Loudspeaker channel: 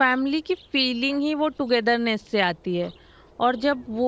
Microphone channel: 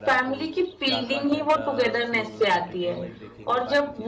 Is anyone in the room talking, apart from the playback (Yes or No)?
Yes